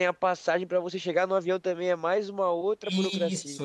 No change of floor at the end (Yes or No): No